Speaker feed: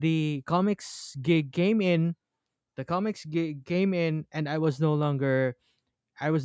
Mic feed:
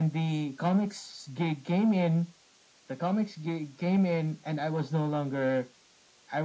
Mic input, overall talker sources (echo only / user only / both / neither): echo only